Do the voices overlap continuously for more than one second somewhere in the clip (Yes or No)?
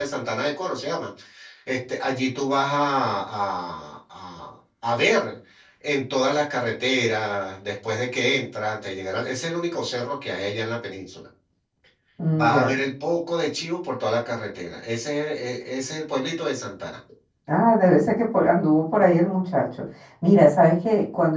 No